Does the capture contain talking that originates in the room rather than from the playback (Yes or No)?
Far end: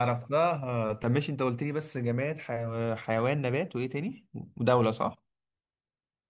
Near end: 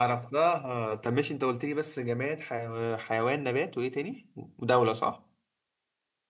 No